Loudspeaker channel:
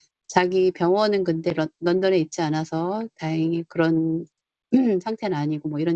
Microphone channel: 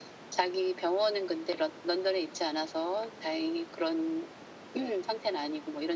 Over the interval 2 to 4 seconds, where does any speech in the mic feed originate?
echo only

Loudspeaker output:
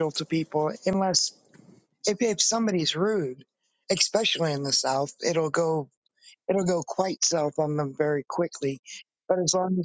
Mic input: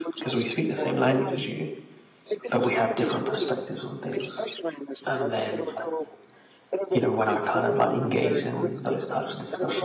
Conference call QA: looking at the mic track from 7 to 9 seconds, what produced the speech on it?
both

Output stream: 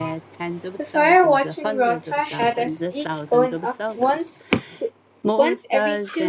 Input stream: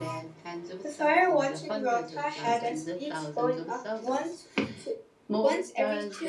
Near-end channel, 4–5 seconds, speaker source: echo only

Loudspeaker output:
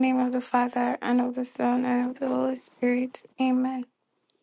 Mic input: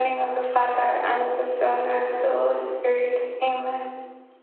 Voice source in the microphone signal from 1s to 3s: echo only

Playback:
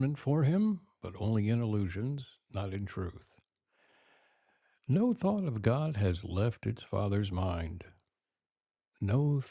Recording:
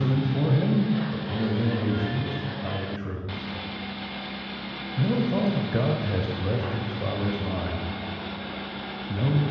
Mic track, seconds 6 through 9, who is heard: echo only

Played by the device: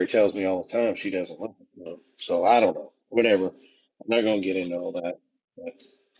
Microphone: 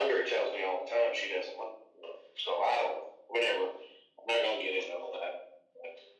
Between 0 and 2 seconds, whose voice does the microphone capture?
echo only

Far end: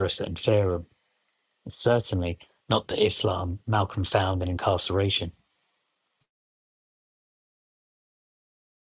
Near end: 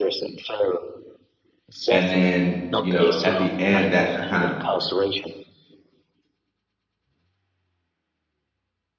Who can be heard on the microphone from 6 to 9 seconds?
neither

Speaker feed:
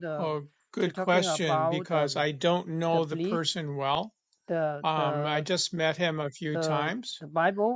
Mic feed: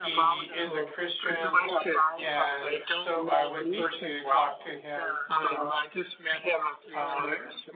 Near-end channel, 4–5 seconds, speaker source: both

